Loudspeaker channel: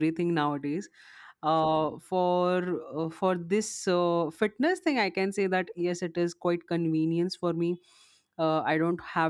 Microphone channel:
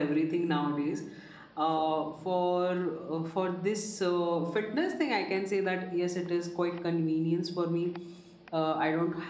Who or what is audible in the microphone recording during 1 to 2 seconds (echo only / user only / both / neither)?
echo only